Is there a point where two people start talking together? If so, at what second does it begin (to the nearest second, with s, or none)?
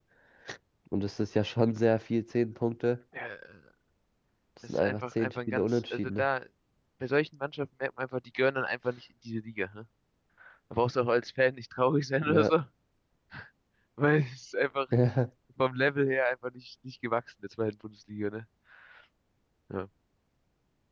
5 s